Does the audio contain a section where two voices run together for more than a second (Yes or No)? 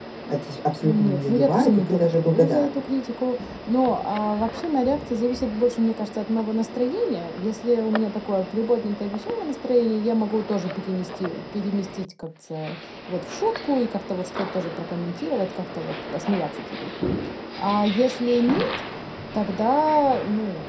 Yes